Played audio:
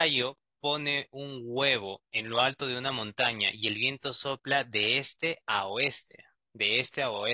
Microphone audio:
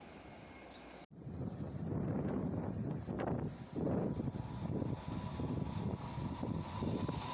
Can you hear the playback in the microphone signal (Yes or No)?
No